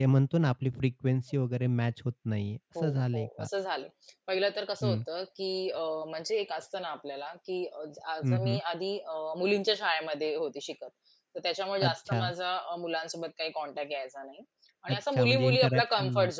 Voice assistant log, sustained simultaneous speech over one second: present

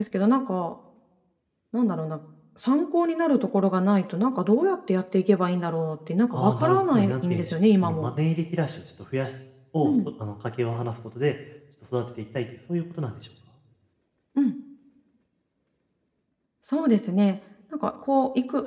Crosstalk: present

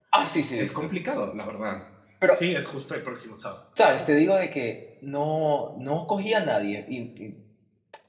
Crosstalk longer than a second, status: none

